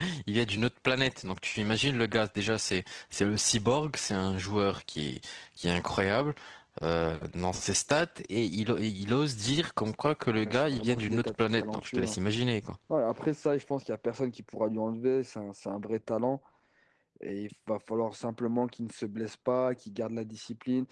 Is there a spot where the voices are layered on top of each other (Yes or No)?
Yes